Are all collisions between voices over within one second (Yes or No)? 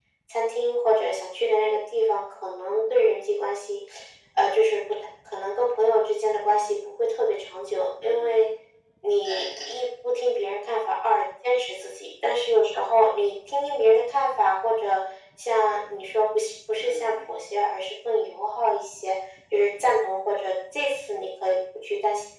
Yes